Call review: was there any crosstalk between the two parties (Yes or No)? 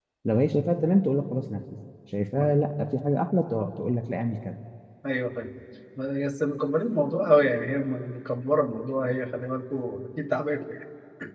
No